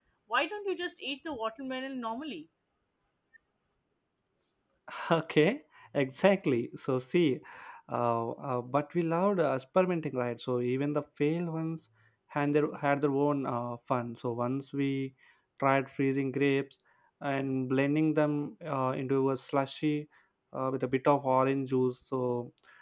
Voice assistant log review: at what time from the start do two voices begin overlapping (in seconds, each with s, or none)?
none